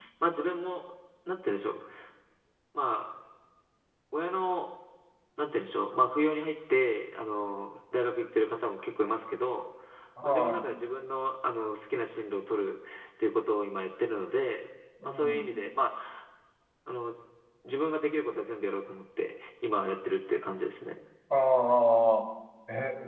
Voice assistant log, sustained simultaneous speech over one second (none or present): none